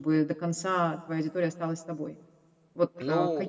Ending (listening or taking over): listening